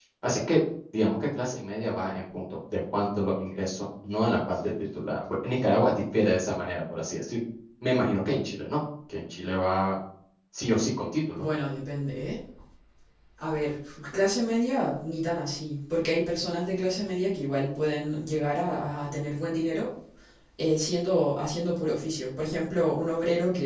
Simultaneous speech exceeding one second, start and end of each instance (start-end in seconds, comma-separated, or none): none